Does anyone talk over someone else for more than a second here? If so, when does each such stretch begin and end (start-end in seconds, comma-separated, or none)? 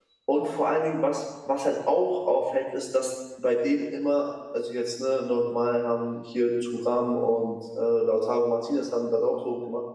none